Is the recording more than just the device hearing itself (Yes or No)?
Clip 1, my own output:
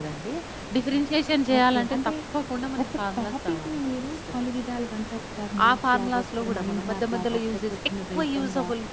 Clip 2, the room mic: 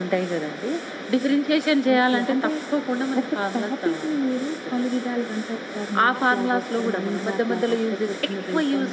No